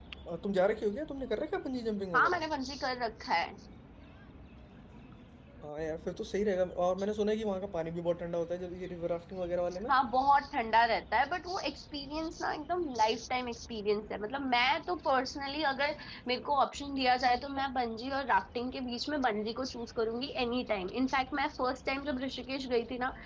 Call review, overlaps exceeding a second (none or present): none